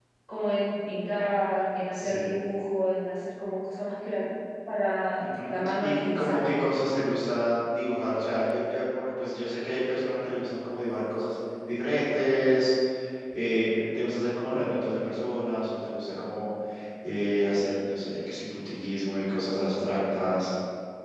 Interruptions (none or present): present